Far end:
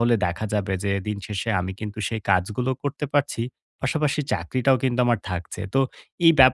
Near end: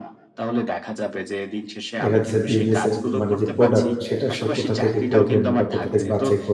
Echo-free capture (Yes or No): No